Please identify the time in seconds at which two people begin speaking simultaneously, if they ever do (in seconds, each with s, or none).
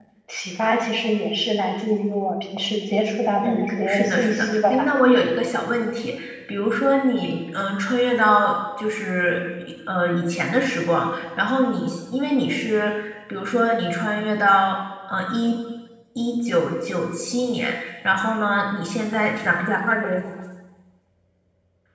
3.4 s